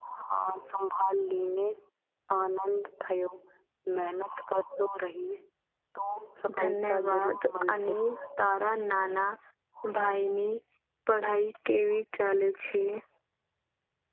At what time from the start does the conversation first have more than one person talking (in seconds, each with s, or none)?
6.6 s